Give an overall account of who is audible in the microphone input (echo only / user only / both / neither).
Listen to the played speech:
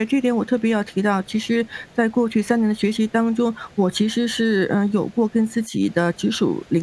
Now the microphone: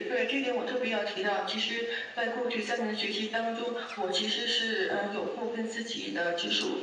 echo only